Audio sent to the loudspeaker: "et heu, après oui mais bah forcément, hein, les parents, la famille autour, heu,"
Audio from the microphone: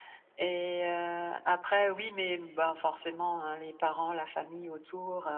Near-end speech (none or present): none